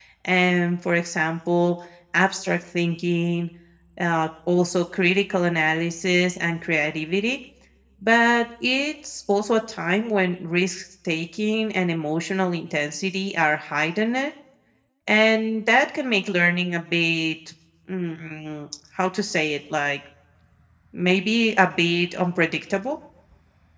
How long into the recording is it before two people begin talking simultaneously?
none

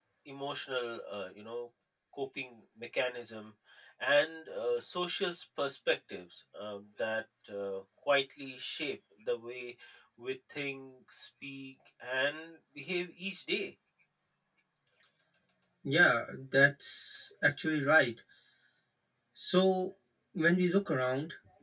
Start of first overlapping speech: none

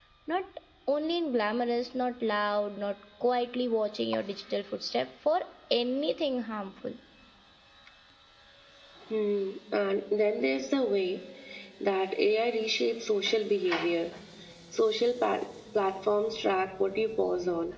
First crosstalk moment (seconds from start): none

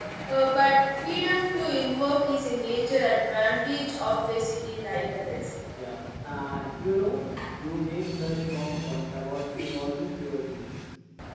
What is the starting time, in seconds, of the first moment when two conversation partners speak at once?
none

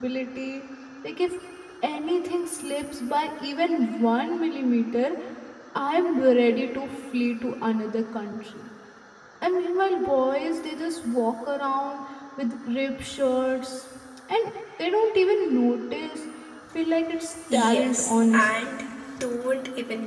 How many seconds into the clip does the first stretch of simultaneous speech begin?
17.5 s

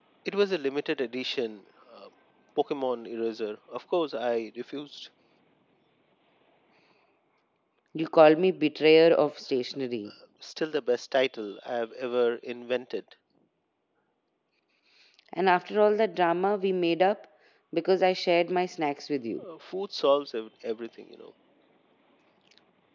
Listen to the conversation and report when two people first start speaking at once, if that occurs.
none

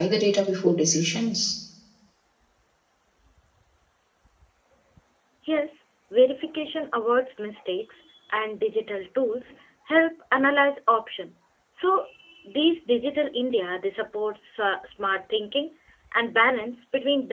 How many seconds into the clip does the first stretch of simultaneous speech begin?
none

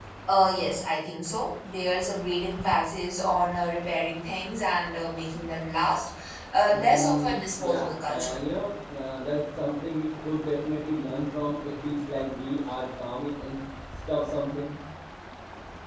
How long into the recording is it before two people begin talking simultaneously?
6.7 s

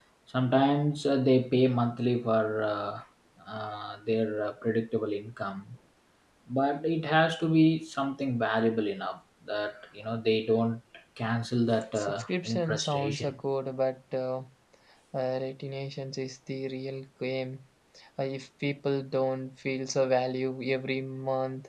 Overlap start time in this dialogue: 11.9 s

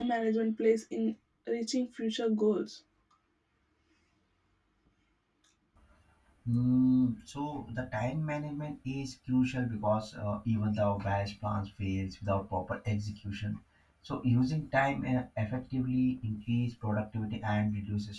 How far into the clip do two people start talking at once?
none

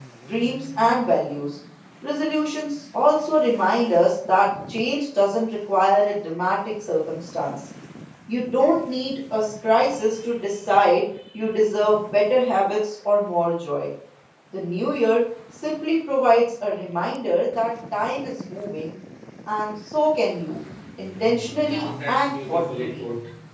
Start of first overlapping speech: 21.6 s

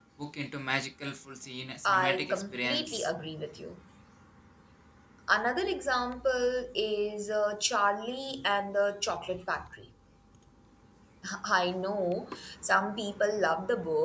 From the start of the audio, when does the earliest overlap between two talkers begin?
1.8 s

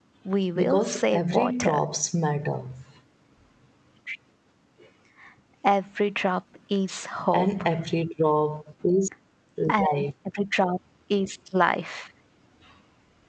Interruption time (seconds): 0.6 s

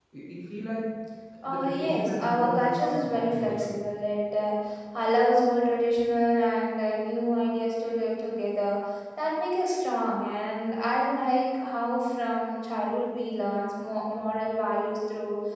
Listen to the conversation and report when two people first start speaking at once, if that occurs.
1.4 s

